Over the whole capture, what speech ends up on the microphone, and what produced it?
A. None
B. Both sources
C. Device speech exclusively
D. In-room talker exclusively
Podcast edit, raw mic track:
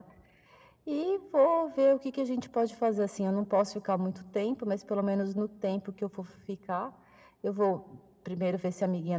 C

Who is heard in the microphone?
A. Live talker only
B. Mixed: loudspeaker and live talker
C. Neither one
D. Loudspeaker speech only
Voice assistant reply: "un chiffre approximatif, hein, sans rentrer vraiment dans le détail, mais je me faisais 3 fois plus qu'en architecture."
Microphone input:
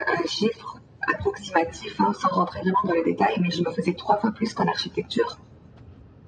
D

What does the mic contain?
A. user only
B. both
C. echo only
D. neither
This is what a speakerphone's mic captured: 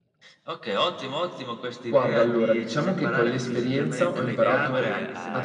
B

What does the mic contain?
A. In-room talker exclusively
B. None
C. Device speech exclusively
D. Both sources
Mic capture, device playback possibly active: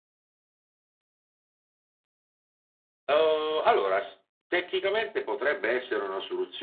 C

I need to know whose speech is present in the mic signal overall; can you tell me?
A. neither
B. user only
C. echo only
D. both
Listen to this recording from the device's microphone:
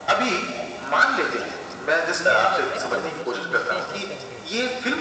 D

